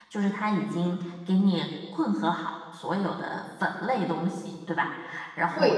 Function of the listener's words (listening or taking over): listening